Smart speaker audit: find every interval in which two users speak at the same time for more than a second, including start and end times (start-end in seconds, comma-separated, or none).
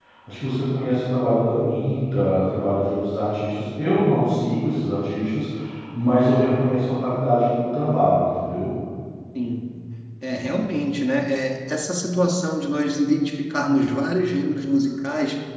none